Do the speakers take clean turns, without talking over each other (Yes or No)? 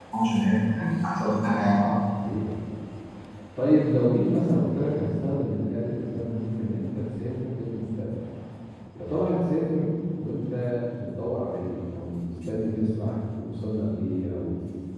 Yes